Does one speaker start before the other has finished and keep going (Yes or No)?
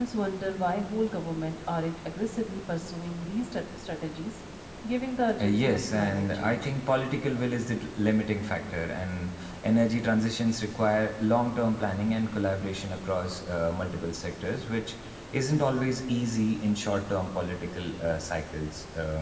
Yes